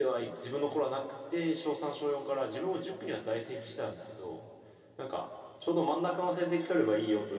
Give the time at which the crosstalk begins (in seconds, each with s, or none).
none